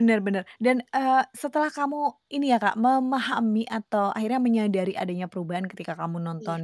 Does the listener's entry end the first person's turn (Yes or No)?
No